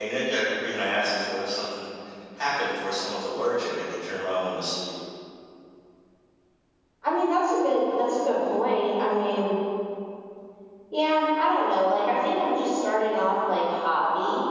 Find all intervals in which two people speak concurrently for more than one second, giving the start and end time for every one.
none

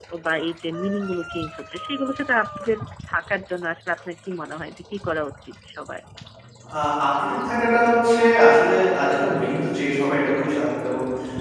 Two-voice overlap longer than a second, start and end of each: none

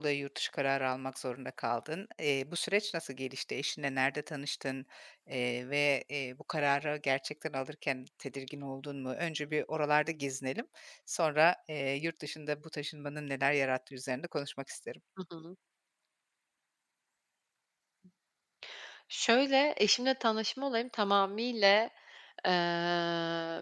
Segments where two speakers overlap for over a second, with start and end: none

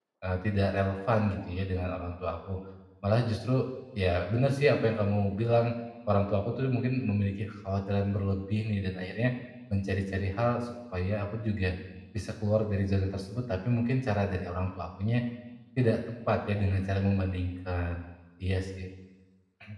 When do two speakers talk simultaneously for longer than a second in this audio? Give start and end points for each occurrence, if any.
none

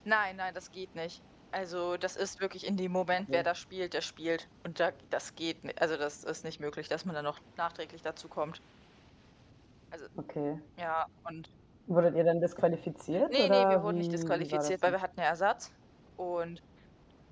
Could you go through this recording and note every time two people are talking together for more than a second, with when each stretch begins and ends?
13.3-14.9

